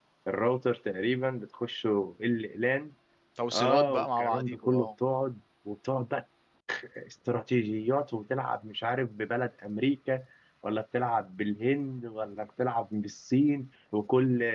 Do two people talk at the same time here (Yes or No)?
Yes